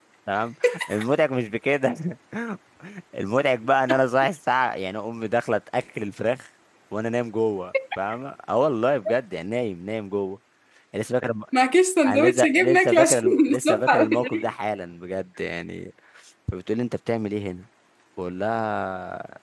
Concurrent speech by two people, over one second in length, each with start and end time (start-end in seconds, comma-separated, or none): 12.1-14.5